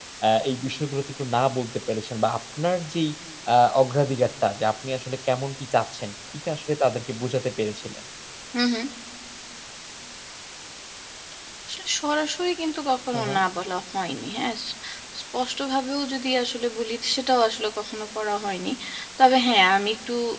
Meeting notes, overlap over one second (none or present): none